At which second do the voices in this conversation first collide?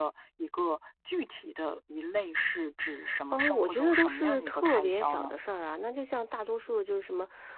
3.3 s

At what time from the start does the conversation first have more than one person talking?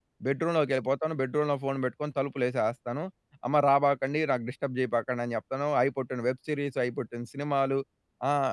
none

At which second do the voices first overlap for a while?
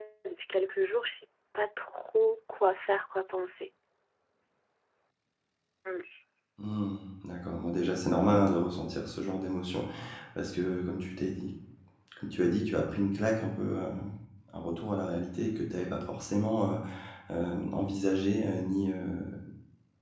none

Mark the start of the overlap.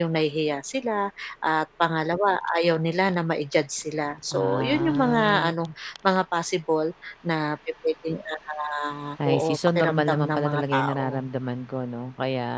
4.3 s

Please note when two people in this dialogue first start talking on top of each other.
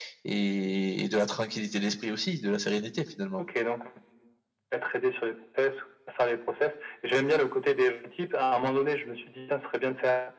none

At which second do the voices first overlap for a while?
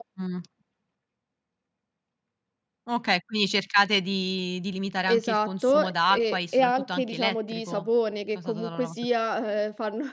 5.1 s

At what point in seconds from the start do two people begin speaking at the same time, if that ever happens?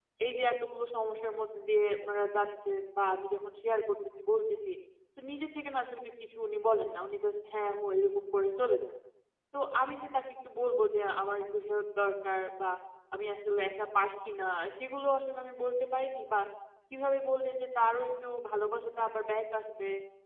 none

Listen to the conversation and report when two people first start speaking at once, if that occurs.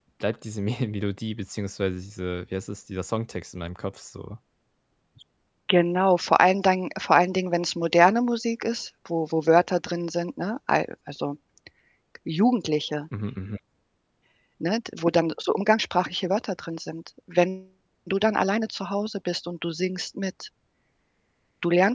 none

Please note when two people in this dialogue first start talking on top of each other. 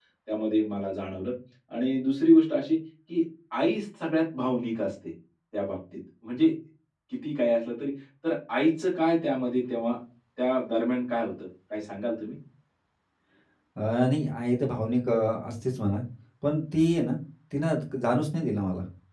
none

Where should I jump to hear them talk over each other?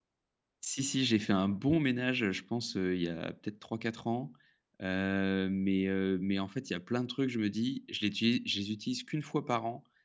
none

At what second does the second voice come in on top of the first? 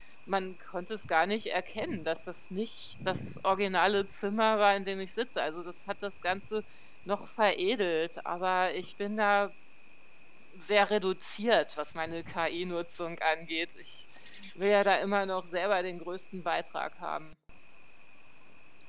none

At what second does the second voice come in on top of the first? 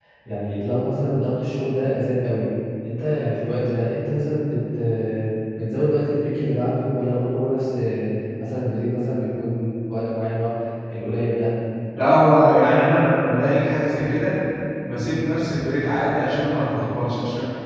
none

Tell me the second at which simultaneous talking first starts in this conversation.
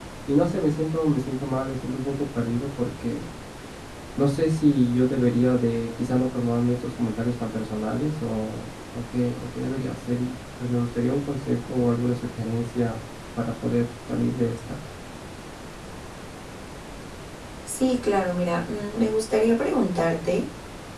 none

